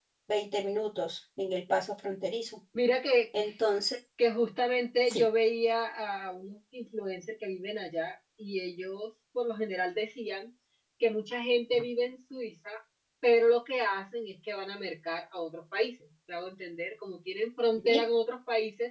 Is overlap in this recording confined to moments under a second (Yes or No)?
Yes